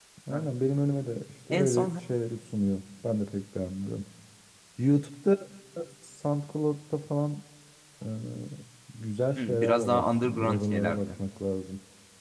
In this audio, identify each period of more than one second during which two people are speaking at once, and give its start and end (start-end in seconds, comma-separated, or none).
9.4-11.1